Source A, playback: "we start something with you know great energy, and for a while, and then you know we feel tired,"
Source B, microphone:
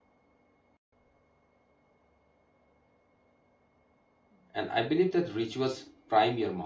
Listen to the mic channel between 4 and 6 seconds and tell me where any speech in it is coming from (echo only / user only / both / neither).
user only